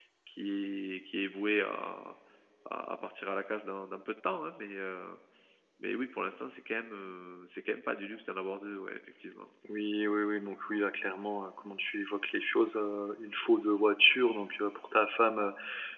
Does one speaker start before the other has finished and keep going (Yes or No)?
No